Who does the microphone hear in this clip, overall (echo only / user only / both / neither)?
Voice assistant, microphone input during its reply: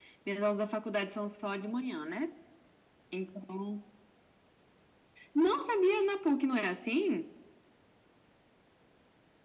echo only